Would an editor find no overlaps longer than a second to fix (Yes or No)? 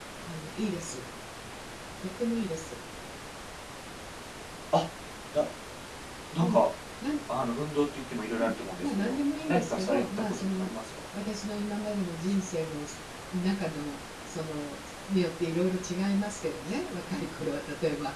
No